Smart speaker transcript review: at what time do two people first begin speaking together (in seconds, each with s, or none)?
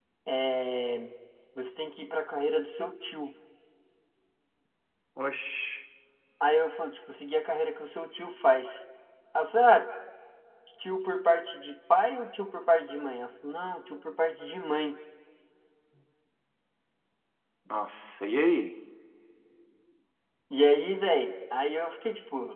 none